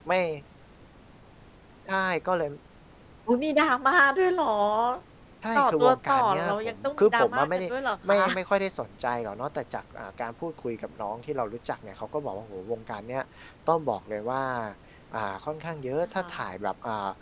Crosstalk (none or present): present